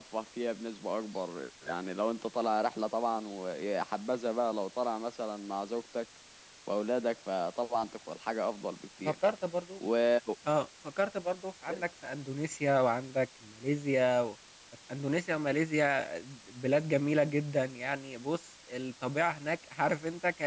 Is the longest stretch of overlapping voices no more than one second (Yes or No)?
Yes